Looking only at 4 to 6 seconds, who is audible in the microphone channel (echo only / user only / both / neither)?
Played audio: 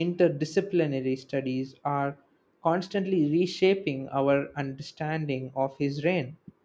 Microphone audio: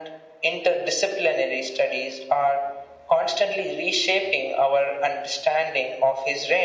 echo only